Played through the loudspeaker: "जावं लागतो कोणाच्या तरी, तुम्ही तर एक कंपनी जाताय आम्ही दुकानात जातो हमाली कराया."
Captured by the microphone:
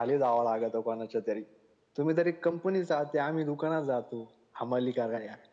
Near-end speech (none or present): none